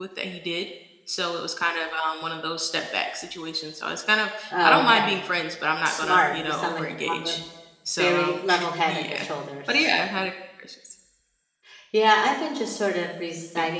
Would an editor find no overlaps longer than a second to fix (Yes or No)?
No